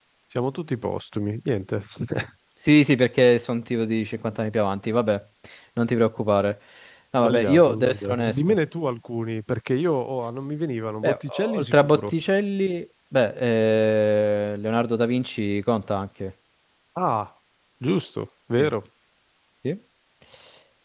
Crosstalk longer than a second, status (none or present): present